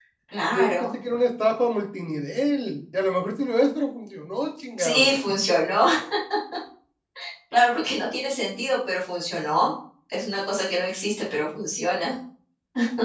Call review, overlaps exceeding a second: none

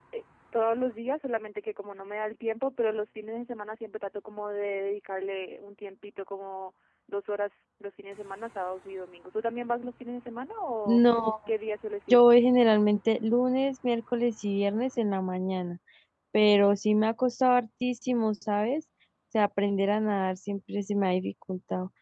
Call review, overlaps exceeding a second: none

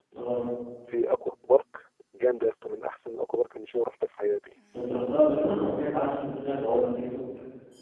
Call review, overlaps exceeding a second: none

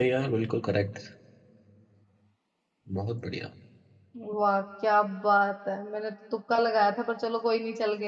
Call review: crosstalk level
none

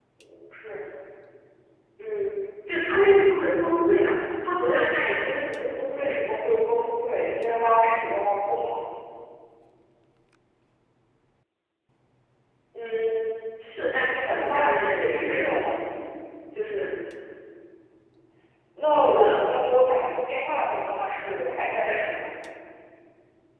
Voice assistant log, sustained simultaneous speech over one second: present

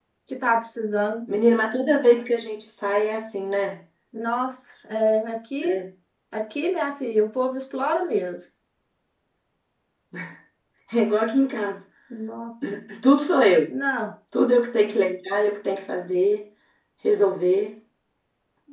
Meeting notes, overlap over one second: none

